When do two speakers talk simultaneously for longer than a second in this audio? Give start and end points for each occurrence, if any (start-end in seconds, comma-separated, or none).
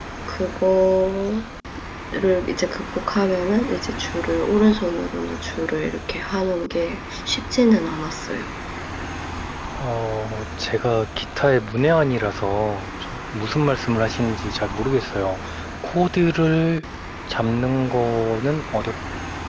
none